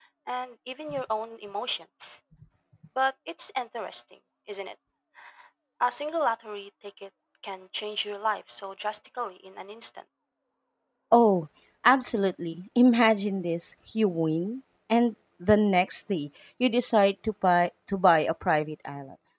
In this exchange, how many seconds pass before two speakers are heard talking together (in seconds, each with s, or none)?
none